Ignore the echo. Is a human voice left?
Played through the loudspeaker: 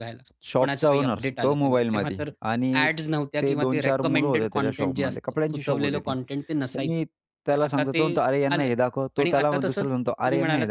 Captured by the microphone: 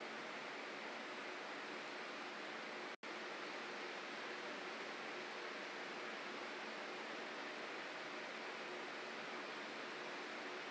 No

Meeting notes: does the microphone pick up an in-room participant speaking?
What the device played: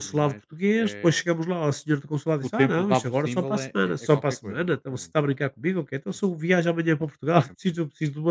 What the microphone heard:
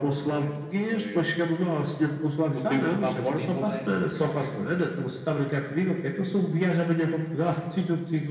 No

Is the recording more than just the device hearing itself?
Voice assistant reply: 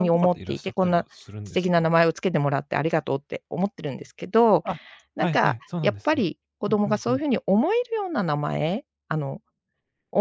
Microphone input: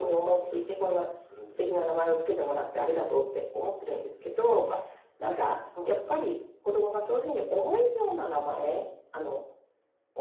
No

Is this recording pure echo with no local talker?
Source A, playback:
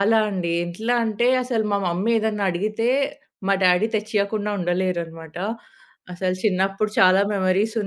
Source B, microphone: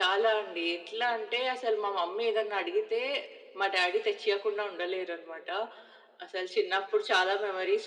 Yes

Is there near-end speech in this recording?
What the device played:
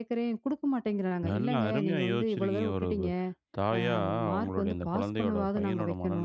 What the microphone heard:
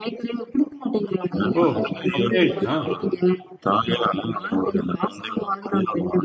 Yes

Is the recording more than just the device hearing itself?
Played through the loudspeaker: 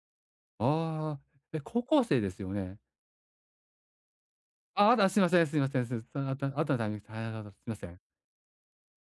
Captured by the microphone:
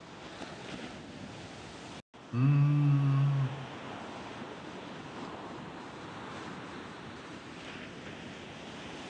Yes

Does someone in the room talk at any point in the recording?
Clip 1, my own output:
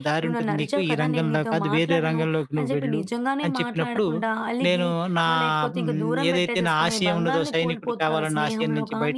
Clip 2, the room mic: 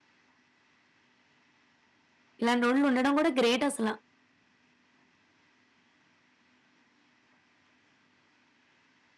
Yes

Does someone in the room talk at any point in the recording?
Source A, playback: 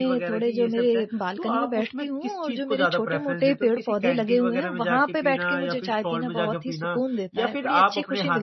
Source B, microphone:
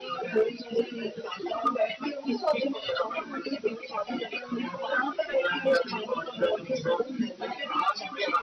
No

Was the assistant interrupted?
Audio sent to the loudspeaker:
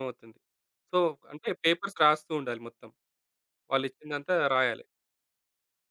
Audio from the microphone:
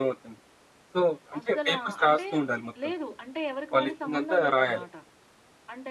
Yes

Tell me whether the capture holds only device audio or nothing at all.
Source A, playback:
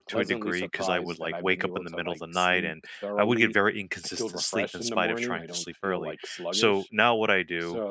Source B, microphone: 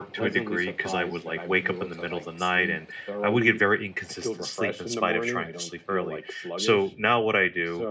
Yes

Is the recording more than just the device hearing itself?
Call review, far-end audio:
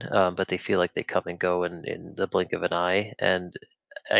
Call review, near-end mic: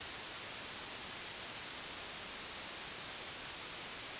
No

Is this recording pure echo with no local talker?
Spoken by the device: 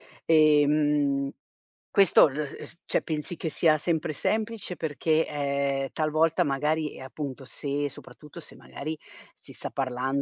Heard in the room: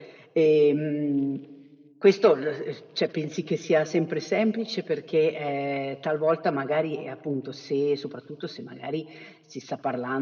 Yes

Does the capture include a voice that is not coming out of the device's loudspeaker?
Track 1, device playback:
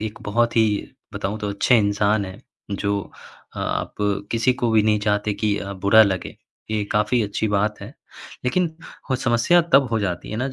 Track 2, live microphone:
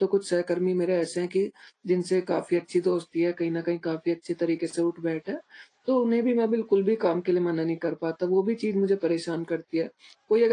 Yes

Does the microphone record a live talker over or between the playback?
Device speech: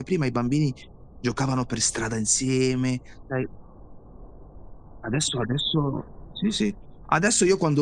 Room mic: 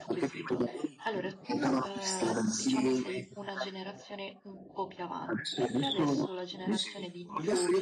Yes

